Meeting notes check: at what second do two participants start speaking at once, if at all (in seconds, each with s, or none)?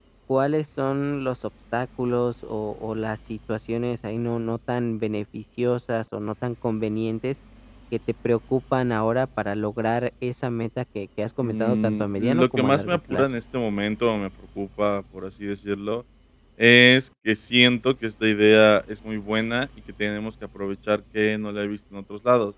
11.4 s